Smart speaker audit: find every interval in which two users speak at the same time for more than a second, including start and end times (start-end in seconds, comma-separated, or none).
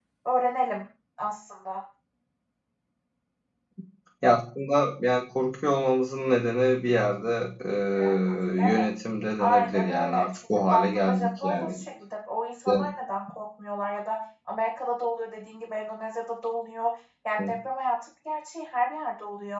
9.4-11.8